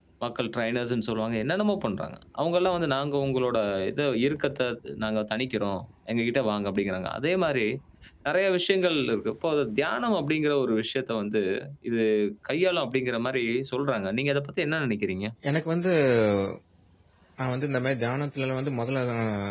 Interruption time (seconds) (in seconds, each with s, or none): none